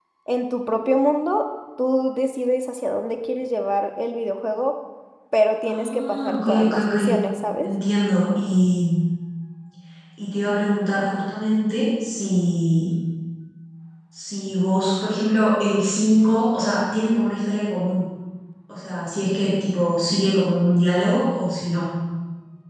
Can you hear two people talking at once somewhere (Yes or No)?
Yes